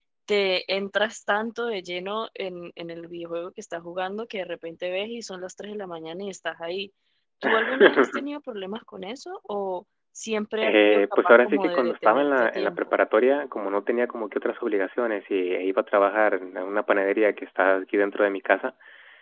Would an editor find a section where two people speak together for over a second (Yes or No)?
Yes